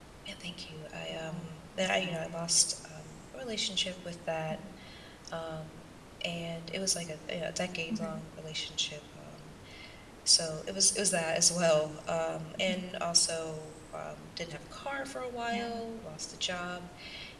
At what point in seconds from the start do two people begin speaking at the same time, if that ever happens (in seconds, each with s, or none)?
1.1 s